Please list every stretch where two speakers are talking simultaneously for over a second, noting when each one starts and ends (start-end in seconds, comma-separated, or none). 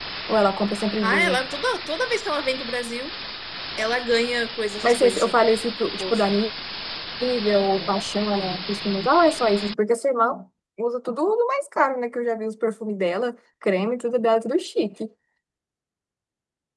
none